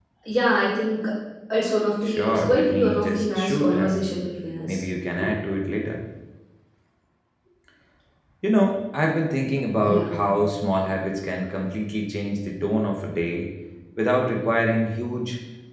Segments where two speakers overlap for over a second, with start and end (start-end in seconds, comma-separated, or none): 2.0-4.2